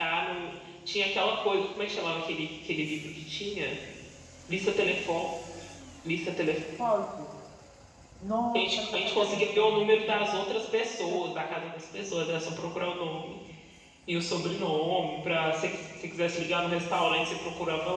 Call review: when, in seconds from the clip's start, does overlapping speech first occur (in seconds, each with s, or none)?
8.5 s